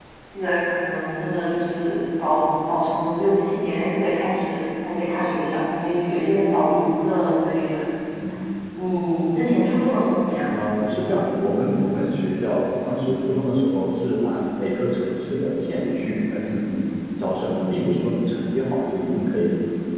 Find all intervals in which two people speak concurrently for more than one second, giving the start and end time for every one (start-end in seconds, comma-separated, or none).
none